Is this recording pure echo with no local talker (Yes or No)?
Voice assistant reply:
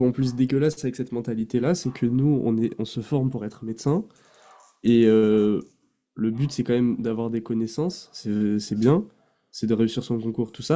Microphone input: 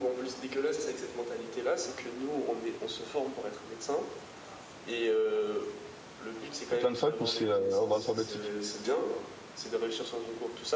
No